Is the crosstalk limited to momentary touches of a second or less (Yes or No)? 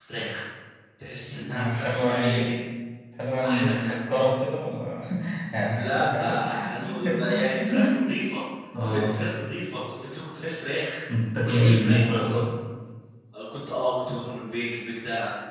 No